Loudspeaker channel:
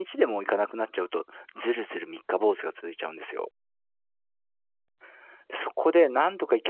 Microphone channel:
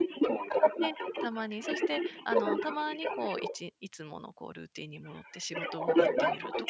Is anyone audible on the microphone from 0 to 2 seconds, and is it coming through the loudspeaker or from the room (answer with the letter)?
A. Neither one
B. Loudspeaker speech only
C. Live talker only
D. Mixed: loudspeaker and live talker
D